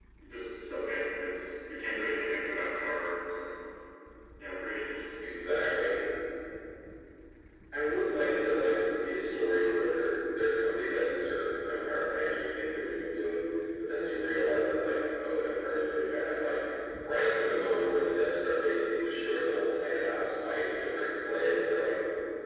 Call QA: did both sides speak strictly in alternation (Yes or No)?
Yes